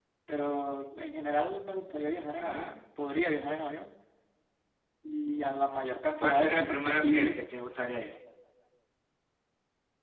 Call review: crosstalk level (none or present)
present